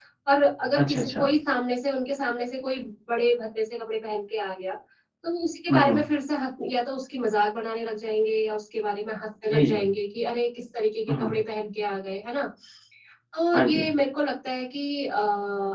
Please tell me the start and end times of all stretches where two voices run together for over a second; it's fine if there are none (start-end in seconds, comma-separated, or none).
none